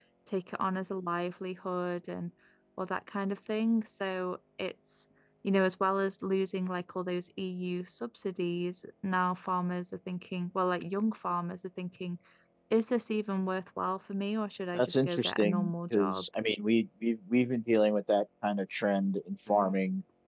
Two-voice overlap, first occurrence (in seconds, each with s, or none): 14.7 s